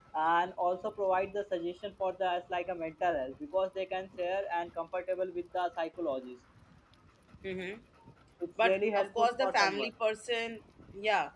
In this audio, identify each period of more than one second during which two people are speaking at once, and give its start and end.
8.6-9.9

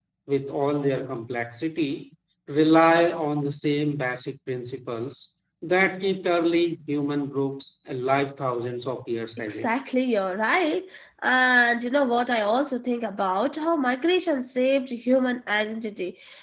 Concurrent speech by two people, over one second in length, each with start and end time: none

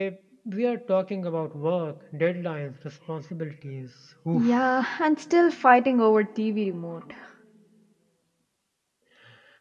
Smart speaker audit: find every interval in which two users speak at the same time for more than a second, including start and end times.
none

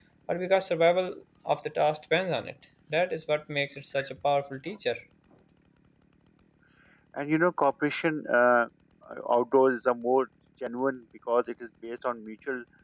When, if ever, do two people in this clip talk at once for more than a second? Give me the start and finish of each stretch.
none

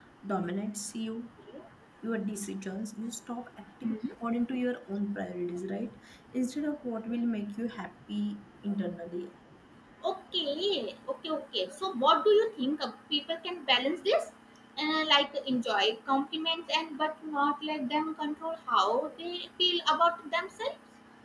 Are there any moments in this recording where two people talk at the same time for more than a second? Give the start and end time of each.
none

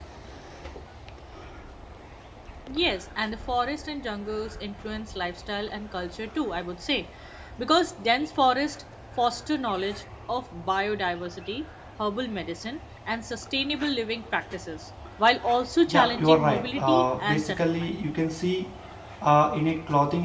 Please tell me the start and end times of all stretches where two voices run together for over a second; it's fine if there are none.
15.9-18.0

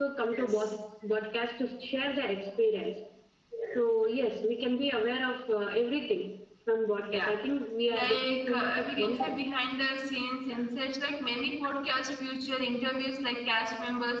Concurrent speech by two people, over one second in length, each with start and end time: 7.9-9.3

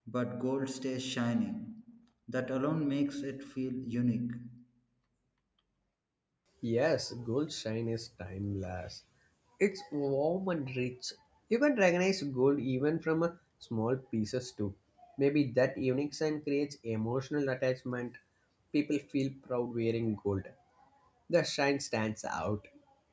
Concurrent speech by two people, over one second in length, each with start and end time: none

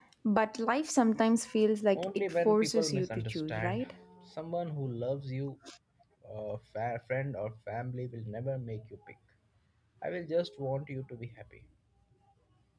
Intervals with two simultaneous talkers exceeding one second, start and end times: 1.9-3.8

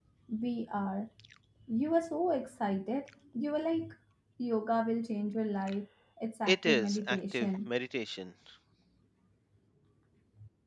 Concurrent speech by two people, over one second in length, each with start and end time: 6.5-7.7

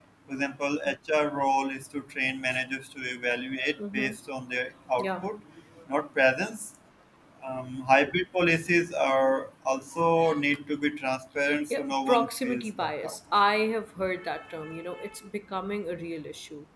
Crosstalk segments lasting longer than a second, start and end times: 11.7-13.2

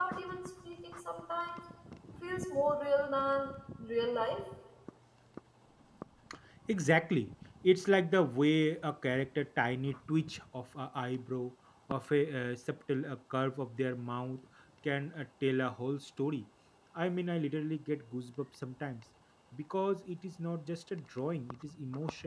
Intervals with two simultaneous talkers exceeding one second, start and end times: none

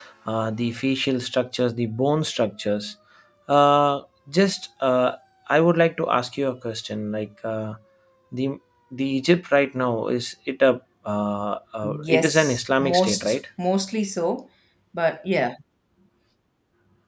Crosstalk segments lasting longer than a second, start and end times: 12.0-13.4

